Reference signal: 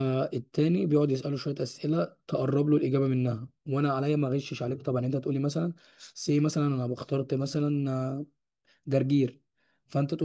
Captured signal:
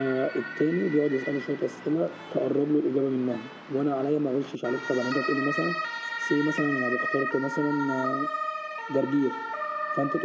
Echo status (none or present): present